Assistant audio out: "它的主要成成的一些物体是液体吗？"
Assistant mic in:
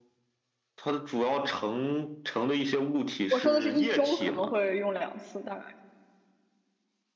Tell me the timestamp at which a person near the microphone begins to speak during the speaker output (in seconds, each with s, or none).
3.3 s